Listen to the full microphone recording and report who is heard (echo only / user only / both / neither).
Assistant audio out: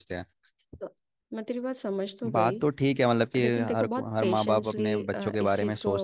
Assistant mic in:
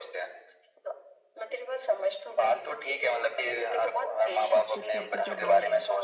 both